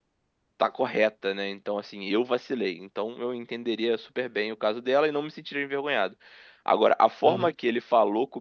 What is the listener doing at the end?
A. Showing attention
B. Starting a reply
A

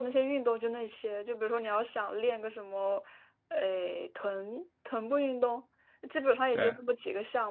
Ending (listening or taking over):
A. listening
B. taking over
A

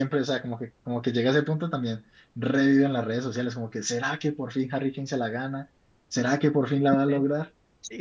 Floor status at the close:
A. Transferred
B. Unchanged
A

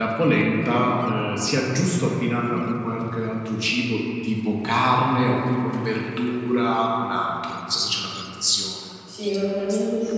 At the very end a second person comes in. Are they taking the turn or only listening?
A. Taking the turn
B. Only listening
A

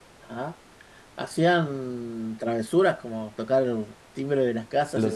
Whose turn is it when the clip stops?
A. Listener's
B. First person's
A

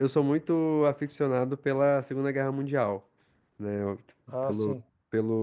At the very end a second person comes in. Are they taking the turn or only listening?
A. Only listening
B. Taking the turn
A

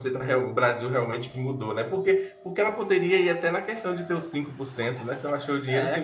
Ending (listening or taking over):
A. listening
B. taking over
B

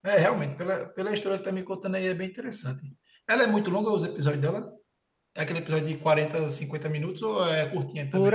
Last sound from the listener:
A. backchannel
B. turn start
B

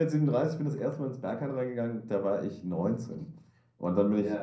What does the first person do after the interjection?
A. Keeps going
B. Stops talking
B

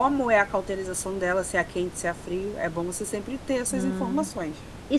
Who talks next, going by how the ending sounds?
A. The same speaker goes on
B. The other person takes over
B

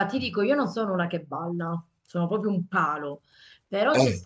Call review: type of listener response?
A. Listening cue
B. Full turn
A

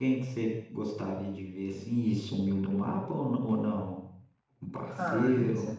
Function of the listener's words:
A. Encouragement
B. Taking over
B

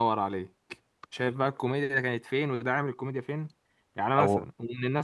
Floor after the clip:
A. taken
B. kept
B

